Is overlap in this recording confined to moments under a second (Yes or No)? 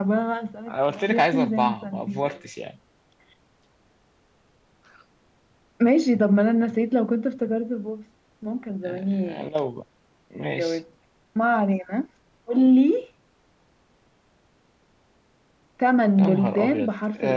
No